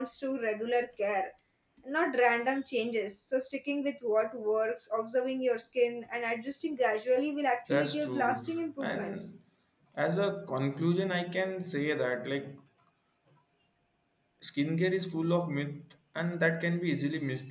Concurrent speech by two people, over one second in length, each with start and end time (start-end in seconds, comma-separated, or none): 7.7-9.1